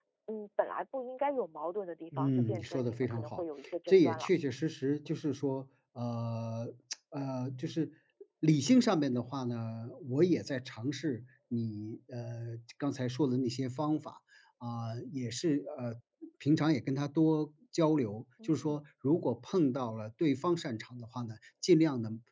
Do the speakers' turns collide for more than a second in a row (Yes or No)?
Yes